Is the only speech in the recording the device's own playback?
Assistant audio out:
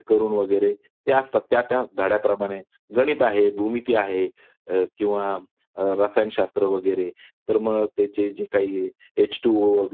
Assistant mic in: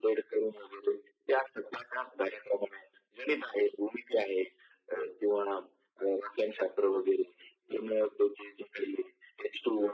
Yes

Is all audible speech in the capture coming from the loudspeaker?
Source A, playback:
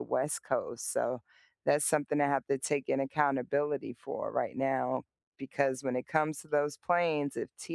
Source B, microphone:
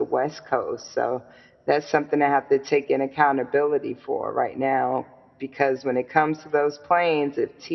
Yes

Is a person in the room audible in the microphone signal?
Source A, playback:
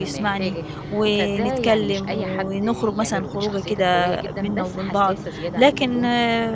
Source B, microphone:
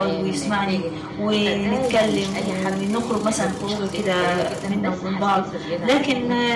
No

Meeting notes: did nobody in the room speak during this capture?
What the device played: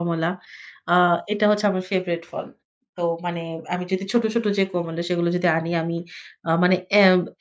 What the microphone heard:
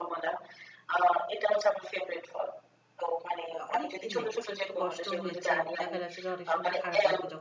No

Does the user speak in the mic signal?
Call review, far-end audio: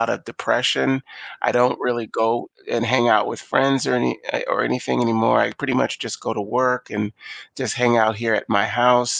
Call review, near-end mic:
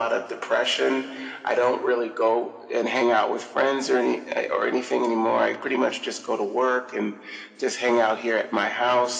No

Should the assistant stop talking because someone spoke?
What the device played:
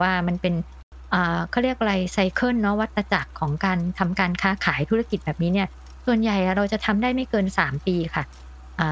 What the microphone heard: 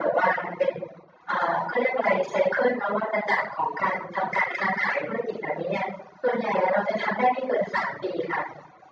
No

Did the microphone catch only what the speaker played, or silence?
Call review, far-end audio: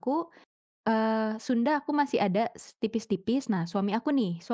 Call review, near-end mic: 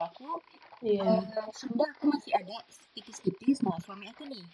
No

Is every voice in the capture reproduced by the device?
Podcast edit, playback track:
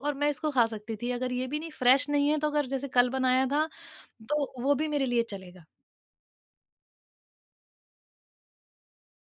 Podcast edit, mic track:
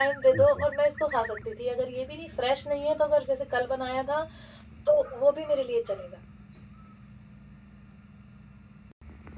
No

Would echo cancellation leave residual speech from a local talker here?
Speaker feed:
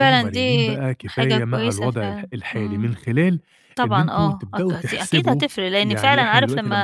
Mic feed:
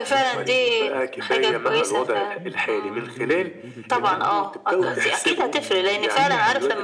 Yes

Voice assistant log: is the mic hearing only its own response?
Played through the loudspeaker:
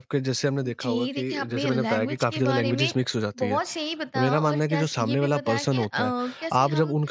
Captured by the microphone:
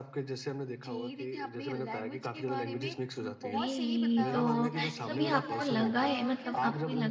No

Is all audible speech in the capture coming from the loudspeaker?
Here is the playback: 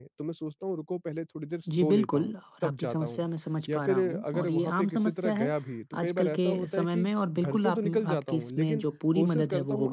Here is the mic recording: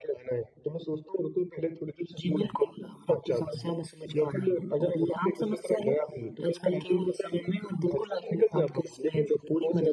Yes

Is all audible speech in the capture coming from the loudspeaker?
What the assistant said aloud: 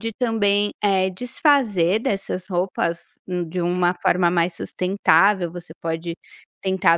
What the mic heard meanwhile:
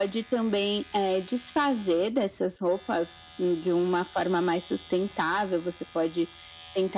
Yes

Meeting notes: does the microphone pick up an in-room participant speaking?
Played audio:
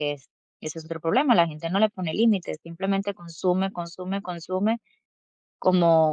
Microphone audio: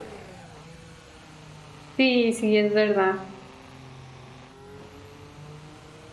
Yes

